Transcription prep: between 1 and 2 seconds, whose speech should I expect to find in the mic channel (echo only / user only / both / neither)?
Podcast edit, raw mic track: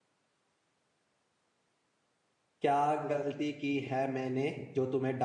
neither